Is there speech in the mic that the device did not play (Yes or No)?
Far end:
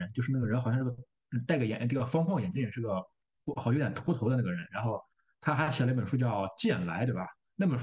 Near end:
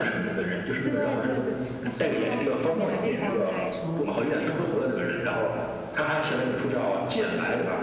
Yes